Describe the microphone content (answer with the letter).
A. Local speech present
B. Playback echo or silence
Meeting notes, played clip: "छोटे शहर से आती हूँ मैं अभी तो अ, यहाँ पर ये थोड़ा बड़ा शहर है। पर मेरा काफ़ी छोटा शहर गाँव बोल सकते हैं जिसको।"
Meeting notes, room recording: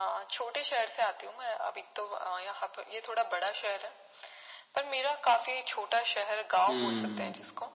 A